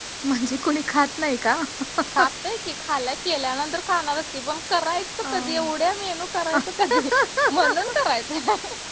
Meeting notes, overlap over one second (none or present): none